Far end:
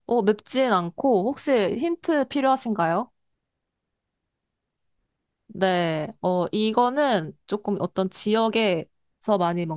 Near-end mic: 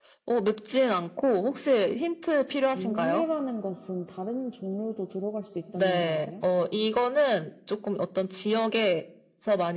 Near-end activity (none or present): present